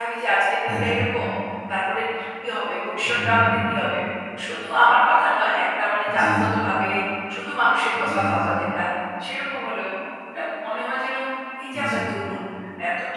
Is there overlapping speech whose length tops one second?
No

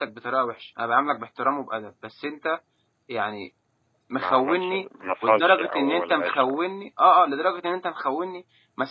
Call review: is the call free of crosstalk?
No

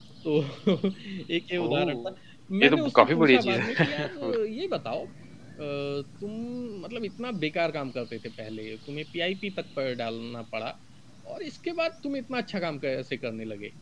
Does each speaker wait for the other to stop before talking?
No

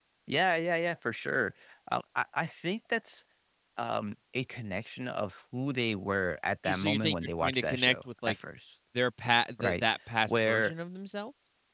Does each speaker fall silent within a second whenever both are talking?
No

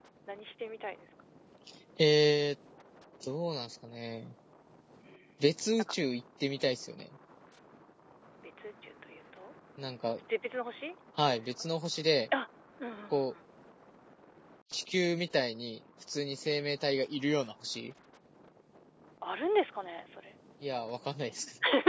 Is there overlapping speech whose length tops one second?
No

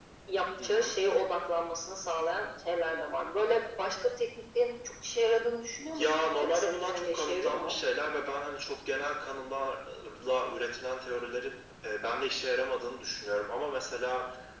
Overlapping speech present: Yes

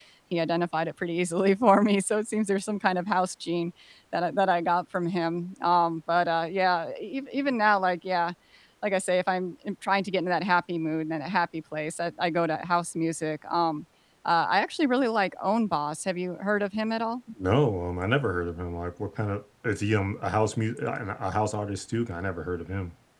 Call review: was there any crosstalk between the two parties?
No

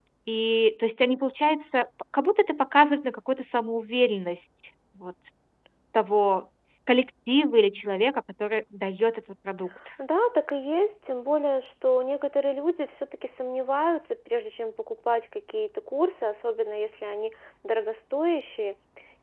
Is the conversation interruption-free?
Yes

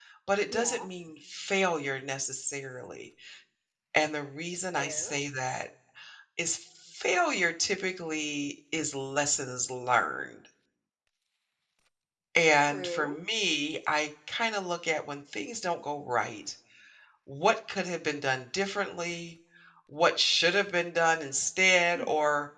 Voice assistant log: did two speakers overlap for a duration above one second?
No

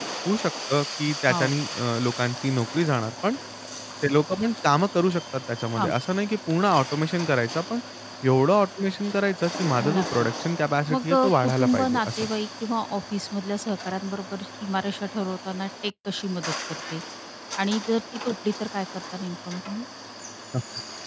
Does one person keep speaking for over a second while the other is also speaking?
Yes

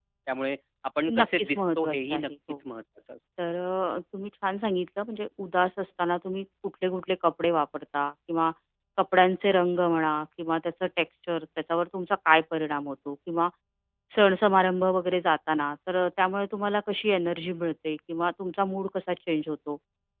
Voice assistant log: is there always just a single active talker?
No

